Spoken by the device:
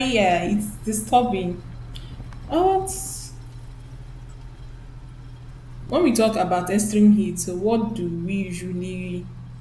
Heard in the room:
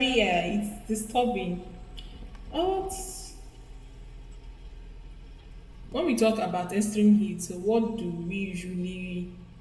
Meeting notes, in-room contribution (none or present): none